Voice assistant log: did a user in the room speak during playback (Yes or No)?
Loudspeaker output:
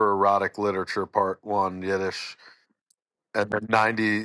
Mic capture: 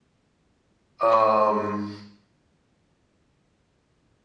Yes